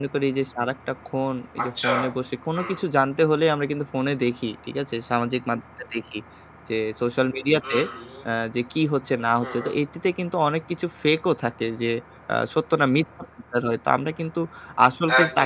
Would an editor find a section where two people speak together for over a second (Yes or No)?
No